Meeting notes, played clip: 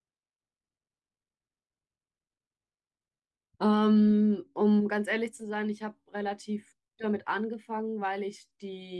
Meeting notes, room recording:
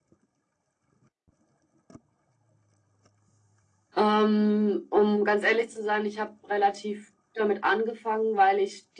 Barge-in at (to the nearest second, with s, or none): none